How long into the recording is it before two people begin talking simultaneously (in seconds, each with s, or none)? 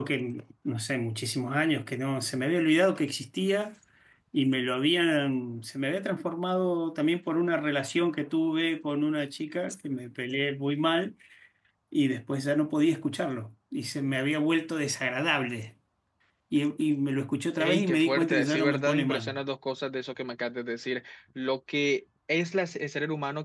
17.6 s